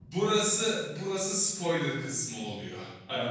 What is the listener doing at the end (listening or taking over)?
listening